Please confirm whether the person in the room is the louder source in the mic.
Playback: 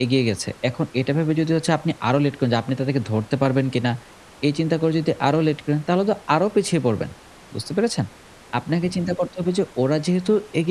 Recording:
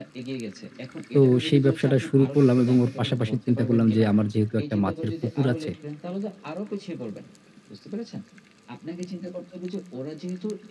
Yes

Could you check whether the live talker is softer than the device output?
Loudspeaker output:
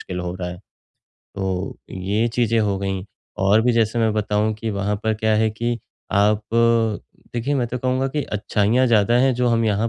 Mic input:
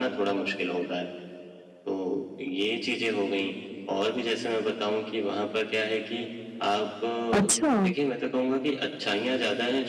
No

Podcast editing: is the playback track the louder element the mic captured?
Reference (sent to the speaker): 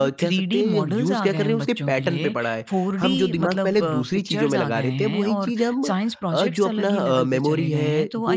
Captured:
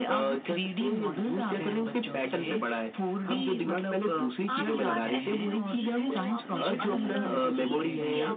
Yes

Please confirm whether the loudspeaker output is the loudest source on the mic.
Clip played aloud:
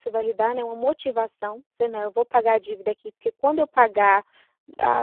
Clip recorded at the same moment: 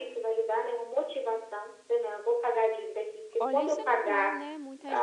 Yes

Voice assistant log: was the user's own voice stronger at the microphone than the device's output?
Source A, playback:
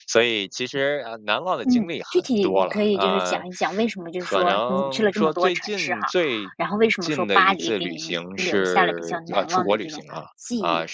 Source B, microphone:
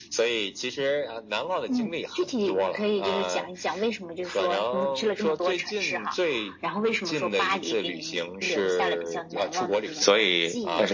Yes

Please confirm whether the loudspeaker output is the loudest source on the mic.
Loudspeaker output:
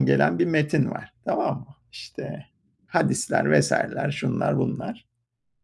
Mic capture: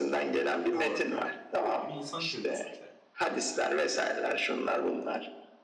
Yes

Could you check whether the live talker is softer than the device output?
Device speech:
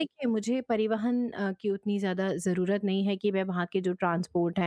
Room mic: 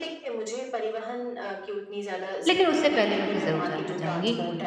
No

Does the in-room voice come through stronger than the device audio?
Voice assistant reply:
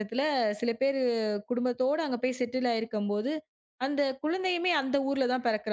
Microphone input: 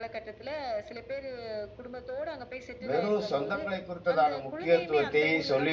Yes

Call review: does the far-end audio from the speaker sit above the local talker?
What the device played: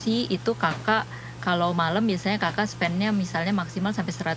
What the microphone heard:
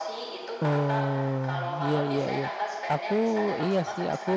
No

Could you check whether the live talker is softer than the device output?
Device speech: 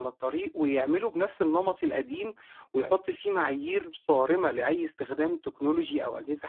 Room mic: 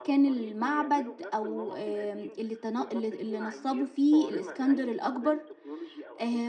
No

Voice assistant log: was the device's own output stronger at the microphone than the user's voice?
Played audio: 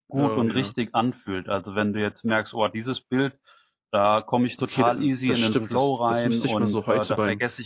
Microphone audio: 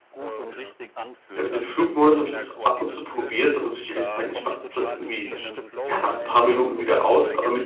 No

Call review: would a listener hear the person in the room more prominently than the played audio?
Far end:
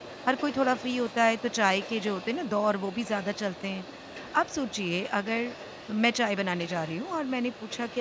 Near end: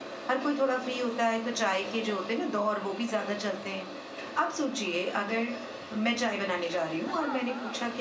No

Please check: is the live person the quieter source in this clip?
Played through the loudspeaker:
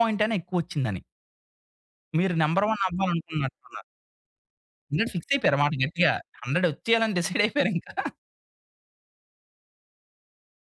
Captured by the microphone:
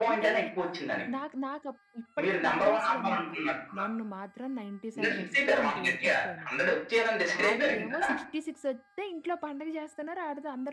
Yes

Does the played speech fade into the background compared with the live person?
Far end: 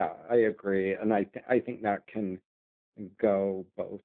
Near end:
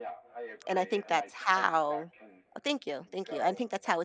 Yes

